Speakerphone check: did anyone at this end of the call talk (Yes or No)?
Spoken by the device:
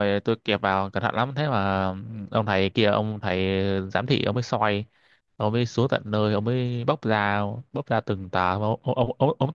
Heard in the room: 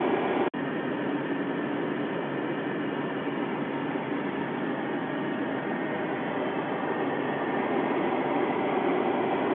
No